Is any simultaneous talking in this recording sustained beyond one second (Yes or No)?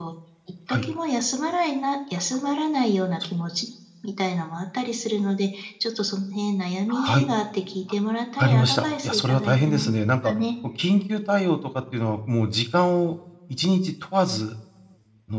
Yes